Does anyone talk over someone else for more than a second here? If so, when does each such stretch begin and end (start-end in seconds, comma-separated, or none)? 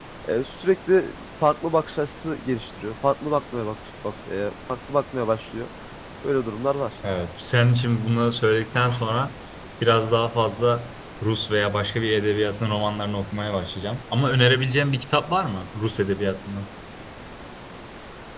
none